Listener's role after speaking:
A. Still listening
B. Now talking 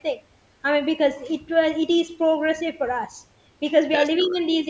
A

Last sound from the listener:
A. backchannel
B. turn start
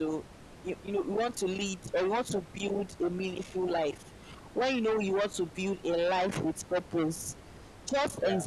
A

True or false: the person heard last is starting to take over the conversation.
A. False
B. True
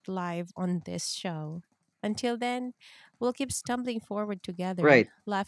B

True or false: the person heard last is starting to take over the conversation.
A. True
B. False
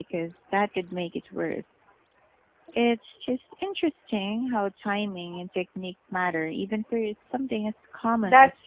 A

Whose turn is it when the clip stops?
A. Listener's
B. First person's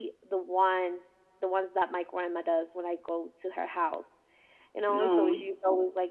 B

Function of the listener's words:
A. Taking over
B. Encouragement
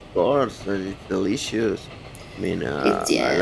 B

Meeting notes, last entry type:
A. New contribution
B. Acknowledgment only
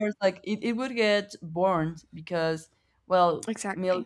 B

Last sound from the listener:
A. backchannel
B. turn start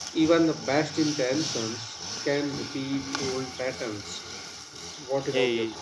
B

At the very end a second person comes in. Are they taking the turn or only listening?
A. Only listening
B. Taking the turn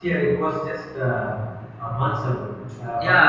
B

